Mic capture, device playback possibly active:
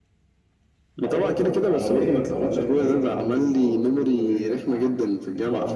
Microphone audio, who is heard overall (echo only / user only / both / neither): both